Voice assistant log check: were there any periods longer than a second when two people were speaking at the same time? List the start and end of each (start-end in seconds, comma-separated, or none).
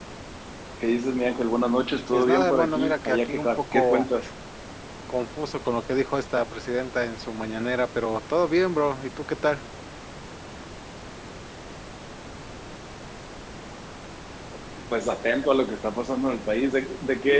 2.1-4.1